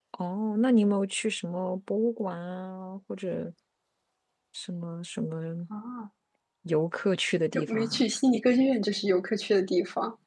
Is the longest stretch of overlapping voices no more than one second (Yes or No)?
Yes